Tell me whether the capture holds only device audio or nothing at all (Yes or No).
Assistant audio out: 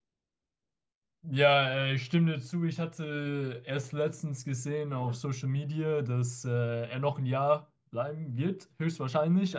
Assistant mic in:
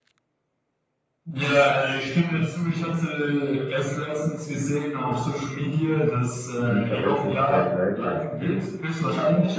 No